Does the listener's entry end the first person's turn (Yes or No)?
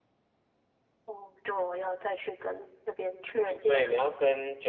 Yes